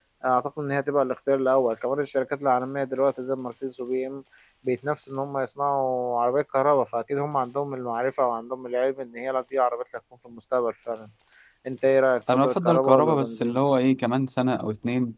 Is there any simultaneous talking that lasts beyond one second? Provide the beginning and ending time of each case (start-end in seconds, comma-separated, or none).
12.3-13.6